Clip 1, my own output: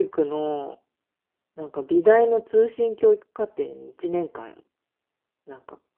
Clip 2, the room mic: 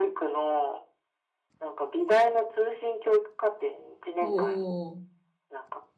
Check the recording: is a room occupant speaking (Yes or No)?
Yes